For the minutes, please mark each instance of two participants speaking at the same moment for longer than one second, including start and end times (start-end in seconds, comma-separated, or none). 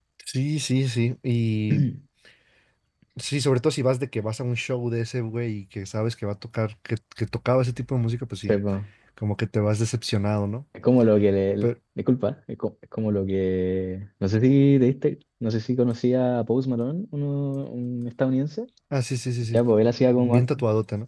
none